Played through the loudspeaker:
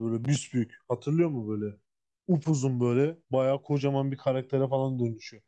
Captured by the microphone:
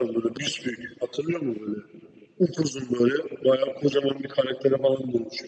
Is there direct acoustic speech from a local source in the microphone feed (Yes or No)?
No